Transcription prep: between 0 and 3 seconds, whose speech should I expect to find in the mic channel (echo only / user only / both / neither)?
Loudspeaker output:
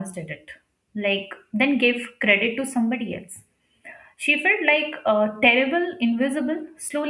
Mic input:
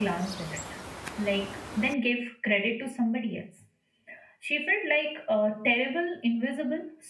echo only